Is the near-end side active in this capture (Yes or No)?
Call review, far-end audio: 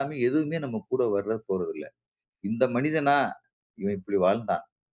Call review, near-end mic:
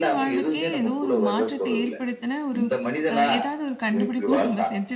Yes